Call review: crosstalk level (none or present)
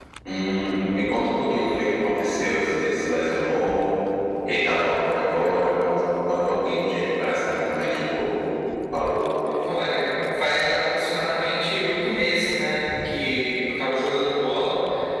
none